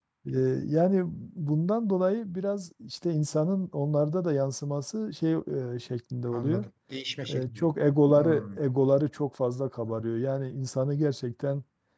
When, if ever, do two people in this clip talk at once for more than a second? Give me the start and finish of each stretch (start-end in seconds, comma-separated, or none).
none